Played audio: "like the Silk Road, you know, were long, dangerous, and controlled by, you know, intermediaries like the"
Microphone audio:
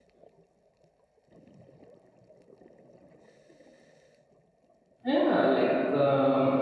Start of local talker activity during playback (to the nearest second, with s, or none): 5 s